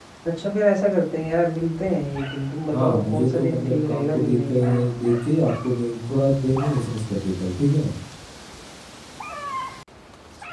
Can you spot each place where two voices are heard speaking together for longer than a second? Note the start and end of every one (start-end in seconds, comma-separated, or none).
2.7-4.8